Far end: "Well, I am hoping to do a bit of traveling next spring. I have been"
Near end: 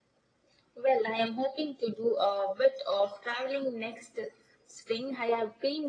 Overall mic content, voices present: echo only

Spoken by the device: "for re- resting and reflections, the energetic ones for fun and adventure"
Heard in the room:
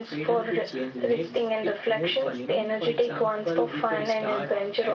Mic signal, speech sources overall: both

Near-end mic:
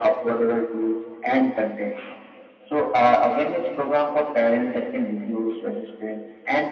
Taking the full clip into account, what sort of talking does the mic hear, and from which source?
echo only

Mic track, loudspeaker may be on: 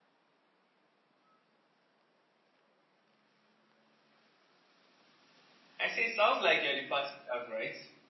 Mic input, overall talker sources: user only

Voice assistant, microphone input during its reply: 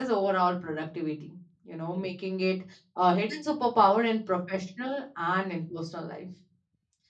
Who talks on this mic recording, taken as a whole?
user only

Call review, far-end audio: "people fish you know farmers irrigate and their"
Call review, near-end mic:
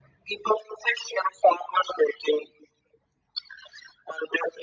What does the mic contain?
echo only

